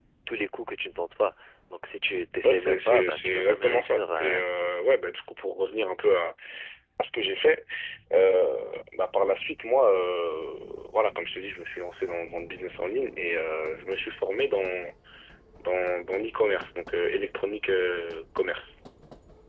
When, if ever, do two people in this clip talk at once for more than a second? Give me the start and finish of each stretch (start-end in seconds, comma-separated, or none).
2.4-4.4